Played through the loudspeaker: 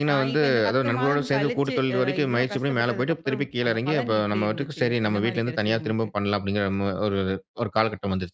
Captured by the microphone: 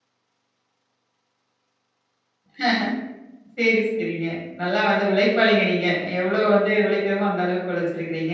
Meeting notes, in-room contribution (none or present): present